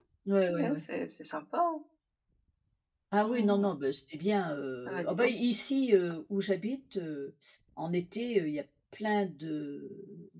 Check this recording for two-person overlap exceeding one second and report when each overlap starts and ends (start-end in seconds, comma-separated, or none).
none